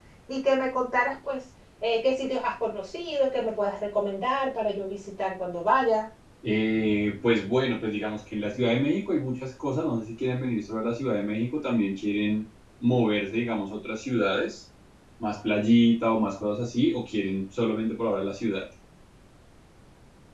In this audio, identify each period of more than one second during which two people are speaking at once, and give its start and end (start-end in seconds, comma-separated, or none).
none